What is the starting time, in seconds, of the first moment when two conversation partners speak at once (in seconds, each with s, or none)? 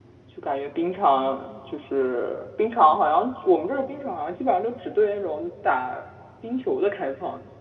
none